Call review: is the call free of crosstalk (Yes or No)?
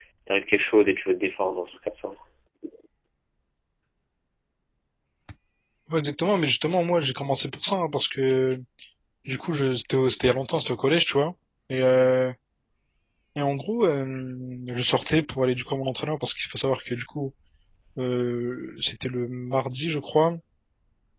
Yes